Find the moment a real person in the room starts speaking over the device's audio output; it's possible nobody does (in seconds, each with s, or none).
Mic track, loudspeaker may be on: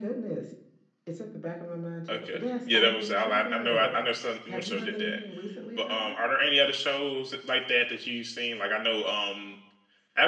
2.1 s